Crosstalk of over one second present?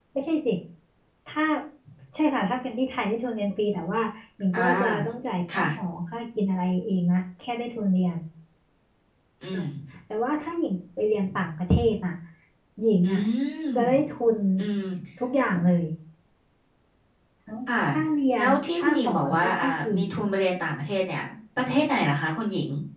Yes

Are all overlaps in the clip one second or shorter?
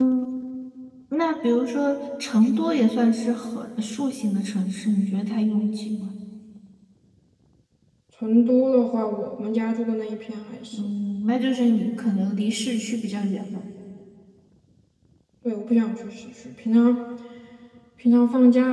Yes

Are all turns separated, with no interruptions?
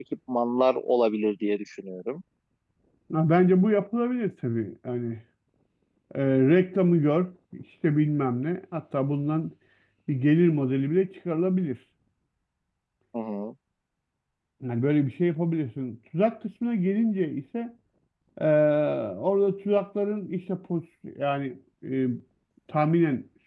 Yes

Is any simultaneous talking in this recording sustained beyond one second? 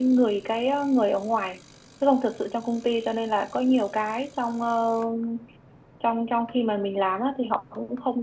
No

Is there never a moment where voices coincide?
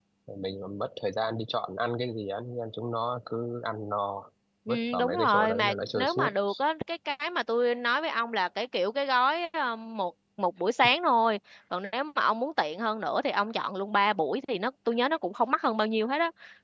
No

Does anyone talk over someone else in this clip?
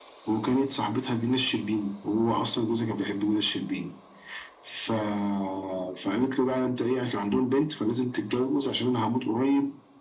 No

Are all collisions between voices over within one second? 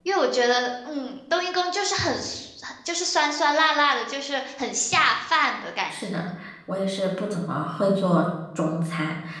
Yes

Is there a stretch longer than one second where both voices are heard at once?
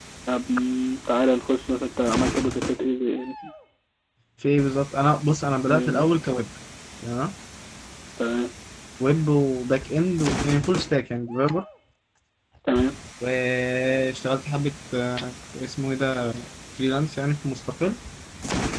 No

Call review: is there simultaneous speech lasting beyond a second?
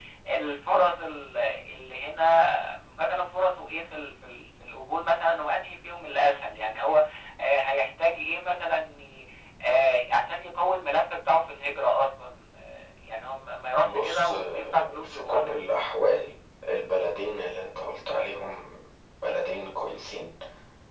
Yes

